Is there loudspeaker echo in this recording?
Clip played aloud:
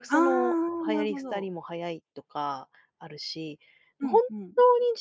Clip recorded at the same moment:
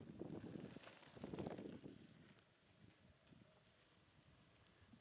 No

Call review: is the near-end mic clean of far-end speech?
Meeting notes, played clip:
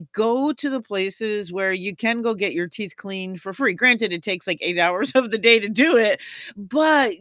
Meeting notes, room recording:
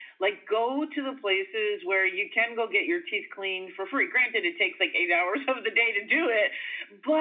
No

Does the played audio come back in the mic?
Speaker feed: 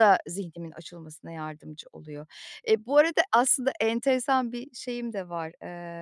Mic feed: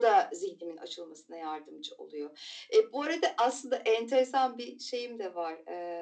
Yes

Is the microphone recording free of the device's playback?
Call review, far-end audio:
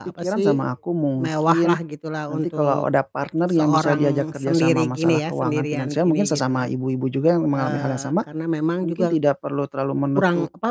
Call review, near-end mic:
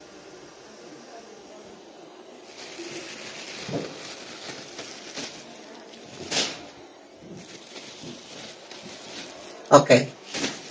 Yes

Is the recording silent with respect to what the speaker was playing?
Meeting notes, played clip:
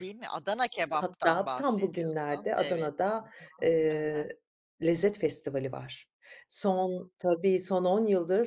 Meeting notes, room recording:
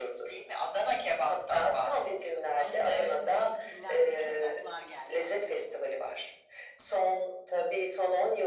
No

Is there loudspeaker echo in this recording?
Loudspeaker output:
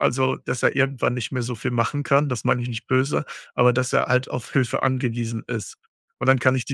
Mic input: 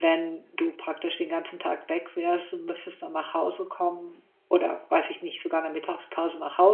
No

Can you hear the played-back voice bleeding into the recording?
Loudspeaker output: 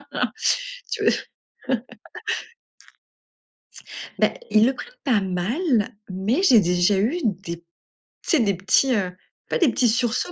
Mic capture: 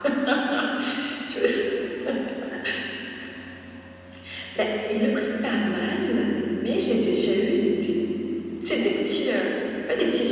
Yes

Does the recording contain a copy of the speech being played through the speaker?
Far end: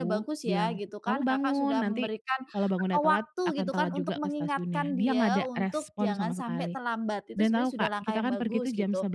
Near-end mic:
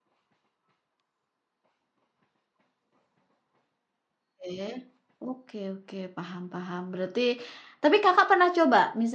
No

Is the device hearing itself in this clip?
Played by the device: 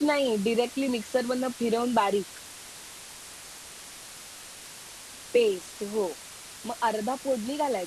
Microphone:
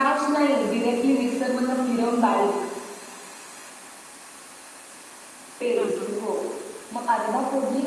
Yes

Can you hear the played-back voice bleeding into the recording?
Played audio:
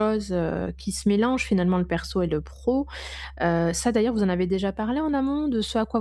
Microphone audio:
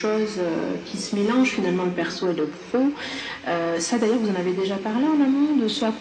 Yes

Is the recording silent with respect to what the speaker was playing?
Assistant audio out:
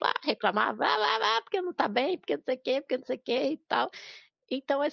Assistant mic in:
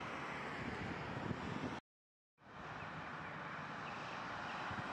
Yes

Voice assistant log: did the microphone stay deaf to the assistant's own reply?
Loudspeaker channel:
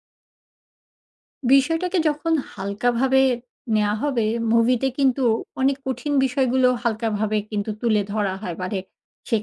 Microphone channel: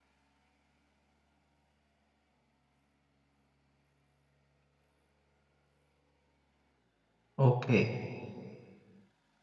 Yes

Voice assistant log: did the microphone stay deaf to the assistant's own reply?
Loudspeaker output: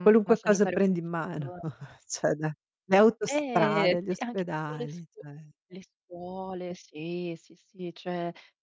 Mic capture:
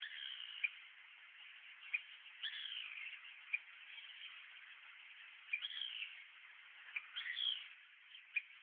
Yes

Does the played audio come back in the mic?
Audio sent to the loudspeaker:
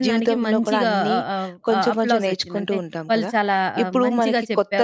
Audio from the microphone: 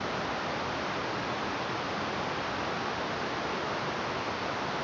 No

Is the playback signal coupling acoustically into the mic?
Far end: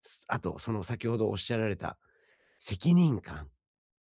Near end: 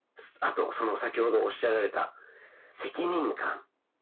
Yes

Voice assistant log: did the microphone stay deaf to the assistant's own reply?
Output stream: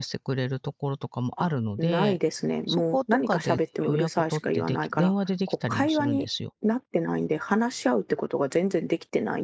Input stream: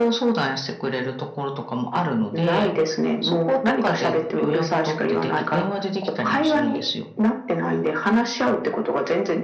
No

